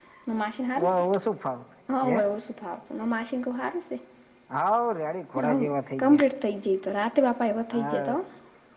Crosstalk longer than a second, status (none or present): none